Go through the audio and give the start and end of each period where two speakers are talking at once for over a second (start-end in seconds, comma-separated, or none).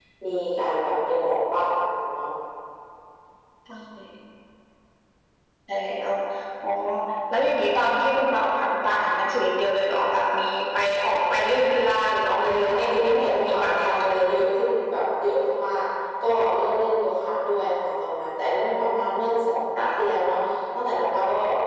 12.4-14.0